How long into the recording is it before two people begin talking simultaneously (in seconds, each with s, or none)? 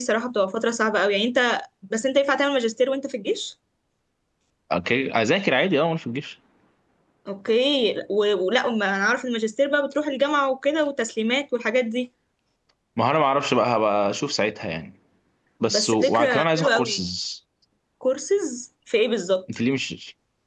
15.7 s